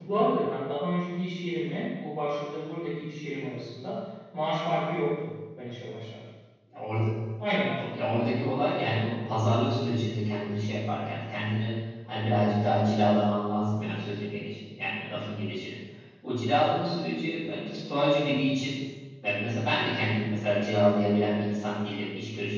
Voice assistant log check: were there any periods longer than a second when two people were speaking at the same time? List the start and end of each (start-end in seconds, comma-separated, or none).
none